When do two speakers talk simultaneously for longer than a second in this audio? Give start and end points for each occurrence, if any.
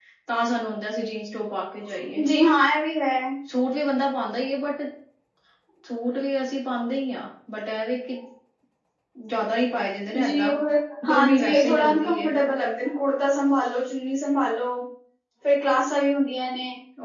11.1-12.3

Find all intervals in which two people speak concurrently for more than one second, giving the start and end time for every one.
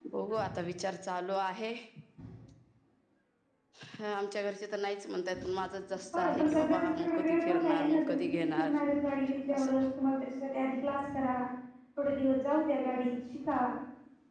6.1-8.7

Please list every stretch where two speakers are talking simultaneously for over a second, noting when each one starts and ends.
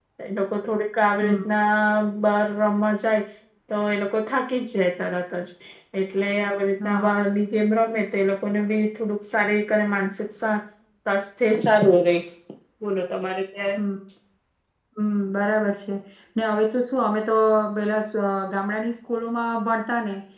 none

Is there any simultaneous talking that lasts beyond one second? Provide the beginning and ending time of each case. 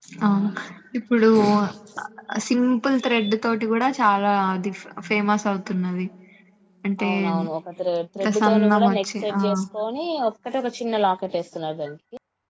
8.2-9.4

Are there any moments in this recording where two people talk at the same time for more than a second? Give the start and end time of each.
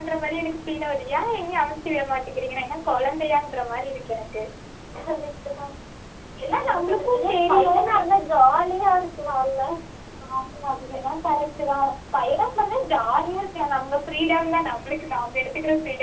6.7-7.9

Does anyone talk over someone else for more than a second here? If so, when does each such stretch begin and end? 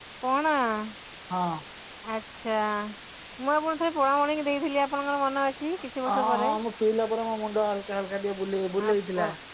none

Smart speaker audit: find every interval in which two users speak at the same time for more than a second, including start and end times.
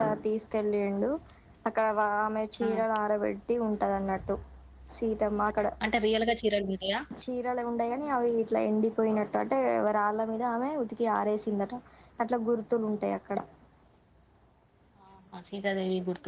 none

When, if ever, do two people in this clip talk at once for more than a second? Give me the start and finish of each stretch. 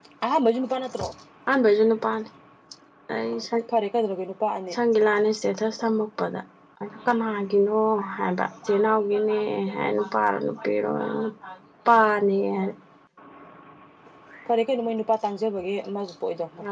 none

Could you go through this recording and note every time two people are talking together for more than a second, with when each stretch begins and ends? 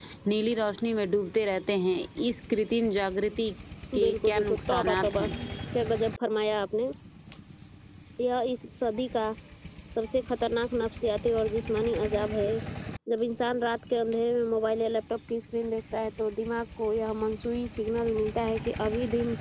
4.0-5.2

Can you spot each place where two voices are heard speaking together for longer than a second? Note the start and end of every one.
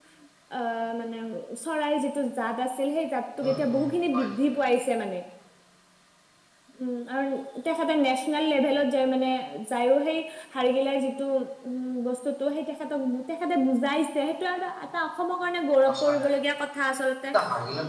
none

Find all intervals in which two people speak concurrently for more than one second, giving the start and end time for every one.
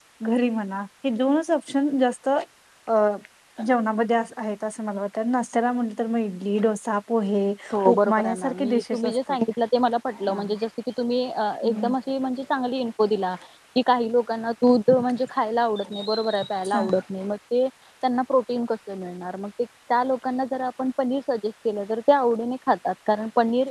7.9-9.4

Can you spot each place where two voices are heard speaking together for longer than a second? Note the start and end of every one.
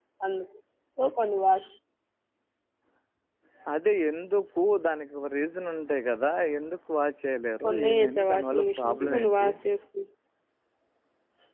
7.6-9.5

